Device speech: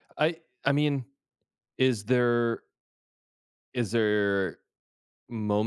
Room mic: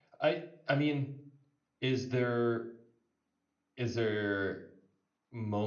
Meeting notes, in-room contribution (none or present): none